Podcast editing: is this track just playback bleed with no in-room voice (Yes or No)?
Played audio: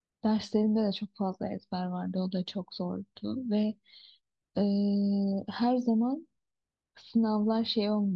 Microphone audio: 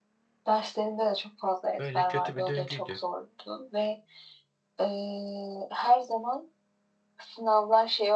No